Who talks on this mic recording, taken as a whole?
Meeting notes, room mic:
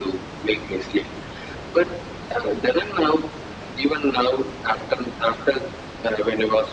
echo only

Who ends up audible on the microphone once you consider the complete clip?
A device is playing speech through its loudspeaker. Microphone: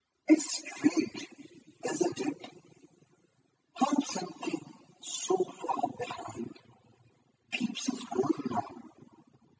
echo only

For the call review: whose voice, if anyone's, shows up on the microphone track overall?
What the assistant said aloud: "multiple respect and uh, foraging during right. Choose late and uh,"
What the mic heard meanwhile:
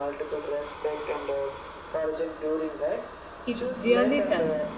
both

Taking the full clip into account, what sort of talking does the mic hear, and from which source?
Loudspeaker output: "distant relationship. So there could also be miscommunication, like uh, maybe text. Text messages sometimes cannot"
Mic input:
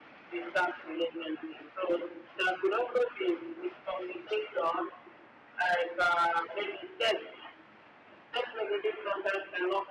echo only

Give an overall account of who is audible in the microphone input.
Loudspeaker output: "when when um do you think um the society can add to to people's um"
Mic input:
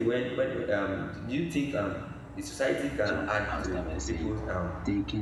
both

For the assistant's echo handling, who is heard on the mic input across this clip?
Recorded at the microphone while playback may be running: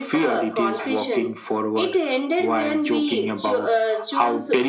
echo only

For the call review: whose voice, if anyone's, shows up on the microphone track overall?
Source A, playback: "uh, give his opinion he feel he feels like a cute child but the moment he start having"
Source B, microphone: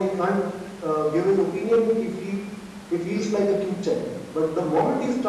echo only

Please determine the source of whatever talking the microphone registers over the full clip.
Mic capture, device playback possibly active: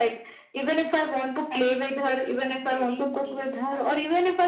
both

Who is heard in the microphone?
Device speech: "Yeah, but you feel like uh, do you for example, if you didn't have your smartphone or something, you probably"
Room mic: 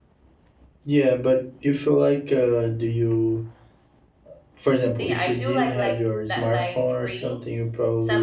both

